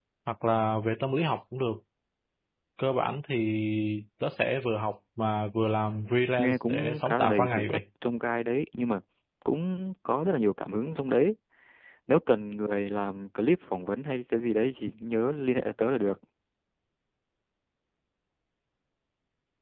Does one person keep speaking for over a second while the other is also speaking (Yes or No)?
Yes